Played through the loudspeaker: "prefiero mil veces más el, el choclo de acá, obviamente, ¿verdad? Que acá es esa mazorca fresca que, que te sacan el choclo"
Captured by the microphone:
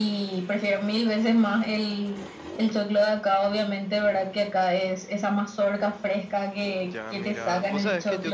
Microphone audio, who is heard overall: both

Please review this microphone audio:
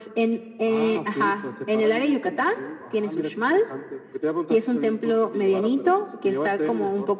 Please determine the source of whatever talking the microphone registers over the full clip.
echo only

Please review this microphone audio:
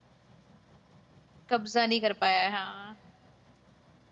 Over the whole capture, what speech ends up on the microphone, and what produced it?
user only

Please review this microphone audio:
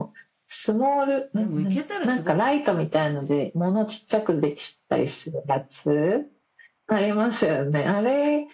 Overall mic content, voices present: both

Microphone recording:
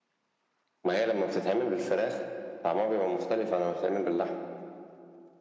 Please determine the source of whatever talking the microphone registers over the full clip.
echo only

